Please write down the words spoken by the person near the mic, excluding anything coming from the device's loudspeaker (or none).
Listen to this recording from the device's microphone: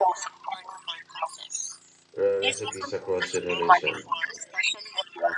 uh, recipes across generation.